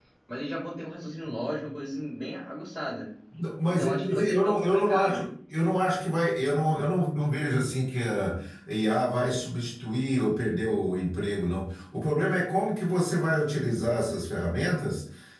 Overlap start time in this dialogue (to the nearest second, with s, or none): 4 s